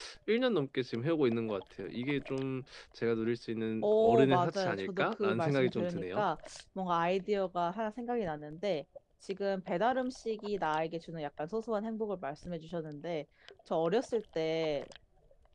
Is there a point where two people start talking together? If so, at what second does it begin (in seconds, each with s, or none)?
3.8 s